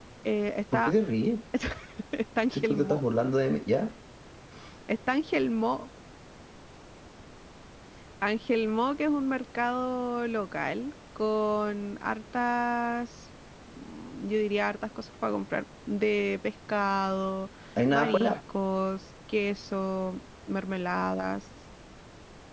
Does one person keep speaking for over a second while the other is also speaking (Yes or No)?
No